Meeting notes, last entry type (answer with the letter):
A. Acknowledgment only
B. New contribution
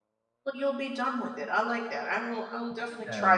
B